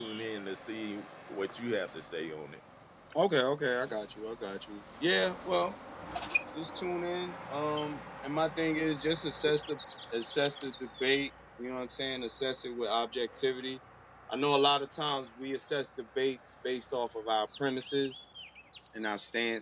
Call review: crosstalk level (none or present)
none